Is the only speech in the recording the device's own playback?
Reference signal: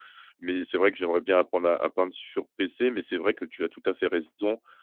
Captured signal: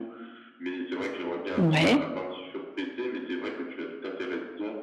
No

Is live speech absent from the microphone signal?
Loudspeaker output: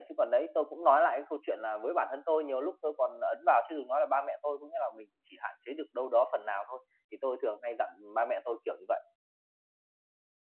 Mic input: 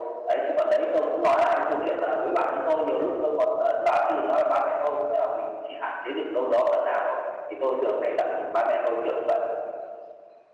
Yes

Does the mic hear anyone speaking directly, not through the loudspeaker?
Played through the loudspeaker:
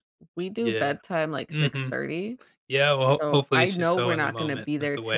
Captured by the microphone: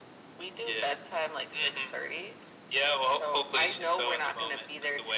No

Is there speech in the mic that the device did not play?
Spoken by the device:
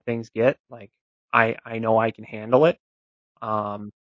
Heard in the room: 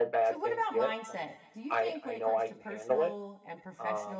Yes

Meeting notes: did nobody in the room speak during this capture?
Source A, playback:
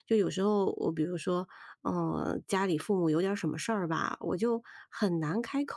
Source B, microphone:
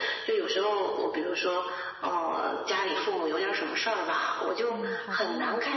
No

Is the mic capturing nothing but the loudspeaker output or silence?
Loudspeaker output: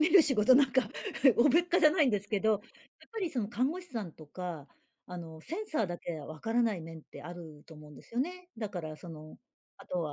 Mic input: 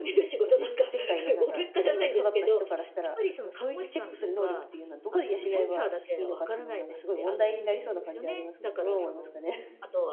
No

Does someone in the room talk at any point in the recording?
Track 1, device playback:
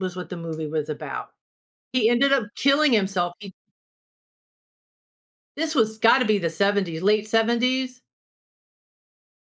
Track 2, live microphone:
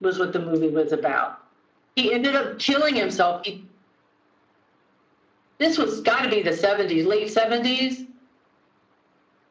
No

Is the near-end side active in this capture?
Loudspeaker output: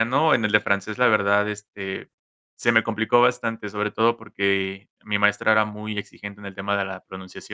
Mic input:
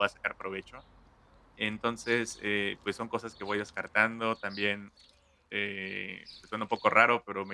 Yes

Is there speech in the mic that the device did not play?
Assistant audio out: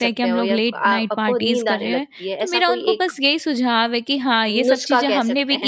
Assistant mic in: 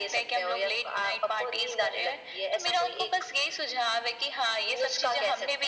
No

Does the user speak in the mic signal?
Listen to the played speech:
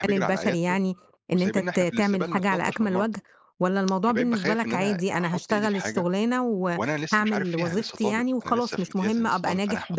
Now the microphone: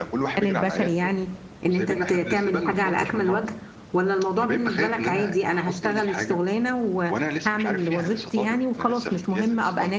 No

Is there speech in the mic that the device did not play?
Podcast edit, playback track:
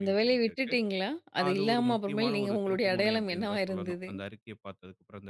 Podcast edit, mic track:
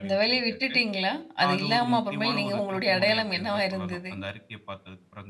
No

